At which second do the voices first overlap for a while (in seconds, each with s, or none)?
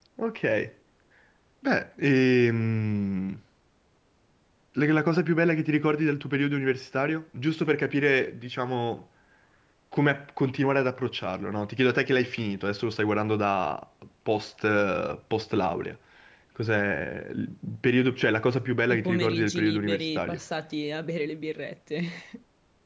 18.9 s